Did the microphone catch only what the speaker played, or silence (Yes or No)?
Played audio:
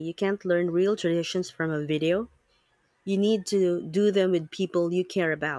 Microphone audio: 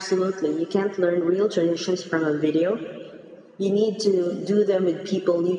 Yes